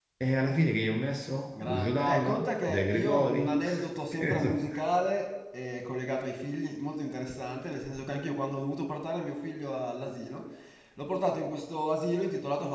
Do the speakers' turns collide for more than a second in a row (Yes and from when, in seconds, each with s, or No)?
Yes, from 1.5 s